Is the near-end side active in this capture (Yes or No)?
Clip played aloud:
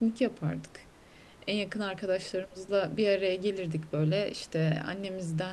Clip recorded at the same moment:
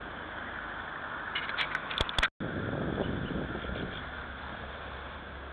No